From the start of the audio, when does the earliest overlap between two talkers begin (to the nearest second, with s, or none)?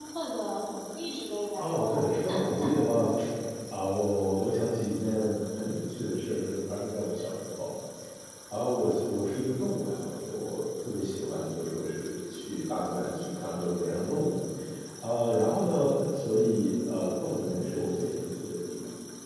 2 s